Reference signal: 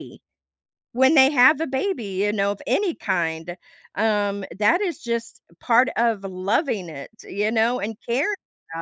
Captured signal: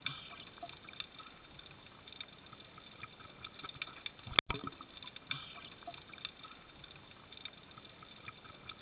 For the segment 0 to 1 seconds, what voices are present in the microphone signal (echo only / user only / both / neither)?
neither